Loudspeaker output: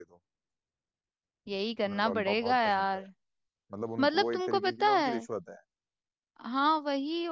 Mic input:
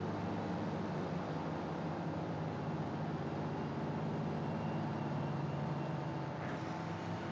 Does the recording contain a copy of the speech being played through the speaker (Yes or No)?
No